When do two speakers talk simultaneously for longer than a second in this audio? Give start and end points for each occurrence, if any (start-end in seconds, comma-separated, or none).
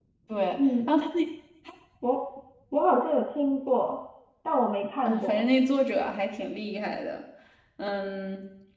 none